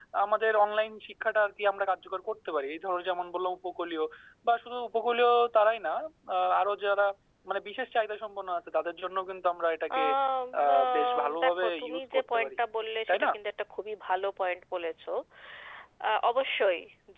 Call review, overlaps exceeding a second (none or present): present